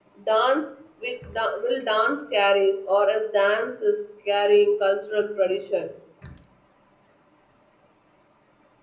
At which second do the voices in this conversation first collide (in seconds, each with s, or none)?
none